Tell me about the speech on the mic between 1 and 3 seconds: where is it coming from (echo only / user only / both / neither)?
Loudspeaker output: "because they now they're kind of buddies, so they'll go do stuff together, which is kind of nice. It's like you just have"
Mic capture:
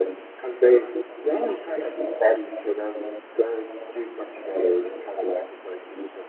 echo only